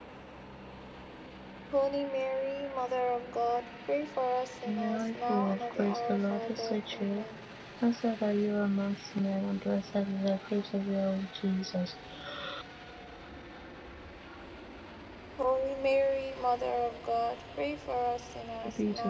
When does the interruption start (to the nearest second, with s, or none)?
5 s